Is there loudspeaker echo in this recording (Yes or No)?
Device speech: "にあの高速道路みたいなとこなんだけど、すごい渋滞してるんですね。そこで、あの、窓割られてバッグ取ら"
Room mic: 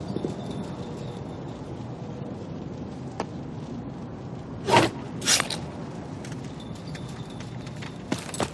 No